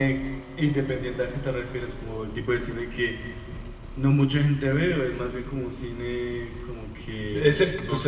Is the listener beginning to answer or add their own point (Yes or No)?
Yes